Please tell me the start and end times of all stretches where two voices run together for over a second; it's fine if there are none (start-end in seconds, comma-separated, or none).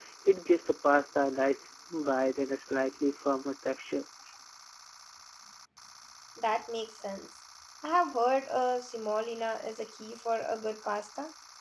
none